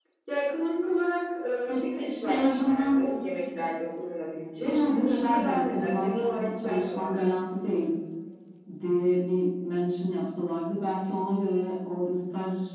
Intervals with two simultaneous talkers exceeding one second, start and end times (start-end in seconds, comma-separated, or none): 1.7-2.9, 4.6-7.1